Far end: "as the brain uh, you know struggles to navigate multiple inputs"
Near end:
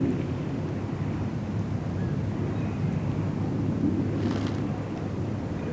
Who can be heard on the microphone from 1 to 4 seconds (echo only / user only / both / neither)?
neither